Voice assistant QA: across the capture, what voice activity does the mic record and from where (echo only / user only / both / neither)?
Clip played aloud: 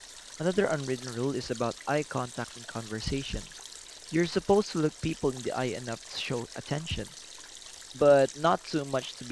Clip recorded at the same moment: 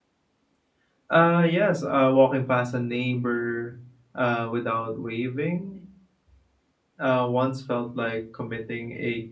user only